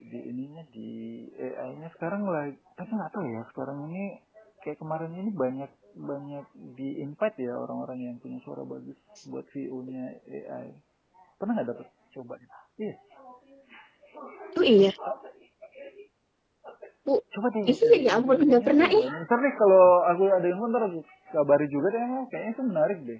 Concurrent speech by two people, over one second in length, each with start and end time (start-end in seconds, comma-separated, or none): 17.7-19.0